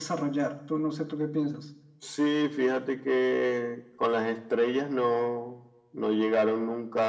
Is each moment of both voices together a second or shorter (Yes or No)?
Yes